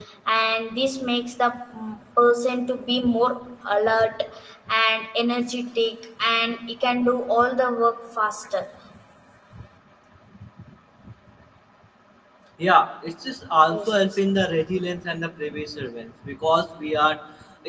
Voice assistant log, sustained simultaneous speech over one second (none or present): none